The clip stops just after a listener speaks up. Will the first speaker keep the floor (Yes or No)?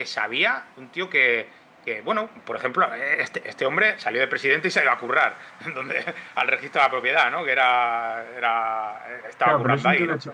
No